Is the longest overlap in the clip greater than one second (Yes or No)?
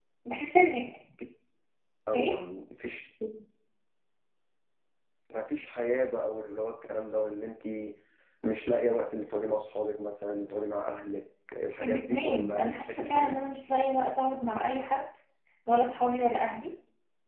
Yes